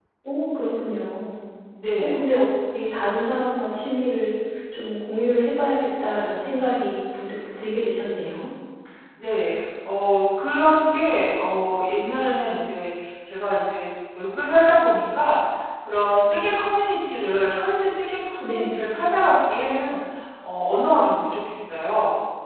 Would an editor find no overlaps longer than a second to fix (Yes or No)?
Yes